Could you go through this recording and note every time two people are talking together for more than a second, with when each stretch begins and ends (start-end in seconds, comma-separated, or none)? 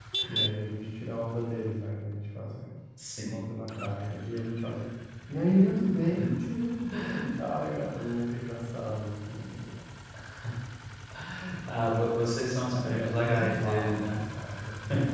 12.7-14.2